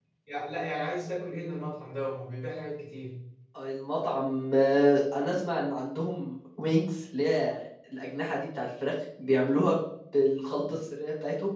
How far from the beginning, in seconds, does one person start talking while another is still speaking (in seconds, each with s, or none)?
none